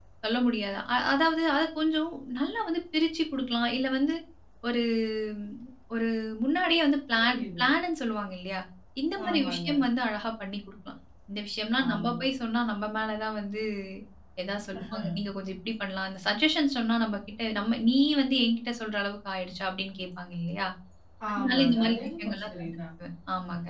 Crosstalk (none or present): present